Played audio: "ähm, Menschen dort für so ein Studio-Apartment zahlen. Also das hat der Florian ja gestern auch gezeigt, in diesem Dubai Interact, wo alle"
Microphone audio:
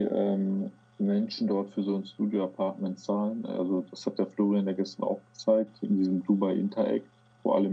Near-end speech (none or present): none